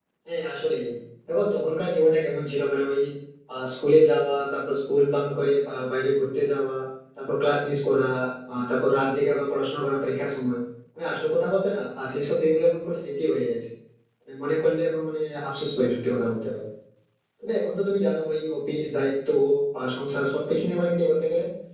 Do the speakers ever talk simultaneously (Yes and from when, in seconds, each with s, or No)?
No